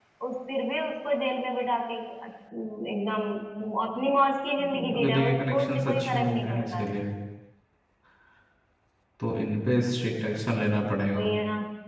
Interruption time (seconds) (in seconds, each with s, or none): 4.6 s